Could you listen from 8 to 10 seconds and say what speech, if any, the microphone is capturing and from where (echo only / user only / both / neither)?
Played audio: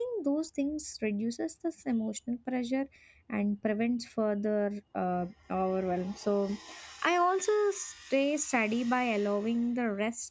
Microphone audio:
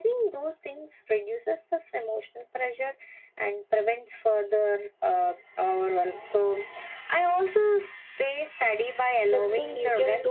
both